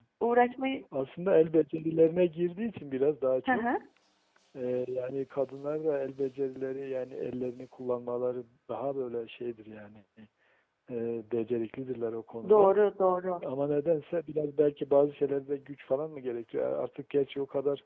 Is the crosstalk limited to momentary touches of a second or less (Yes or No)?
Yes